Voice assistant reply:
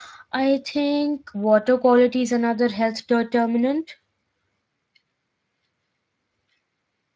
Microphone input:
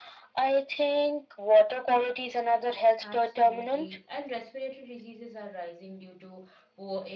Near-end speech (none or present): present